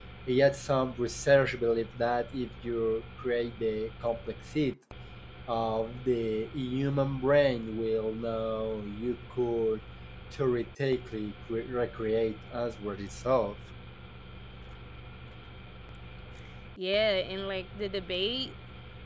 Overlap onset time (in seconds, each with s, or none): none